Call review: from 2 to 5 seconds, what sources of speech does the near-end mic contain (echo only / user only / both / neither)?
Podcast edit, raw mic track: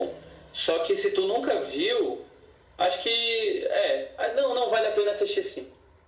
echo only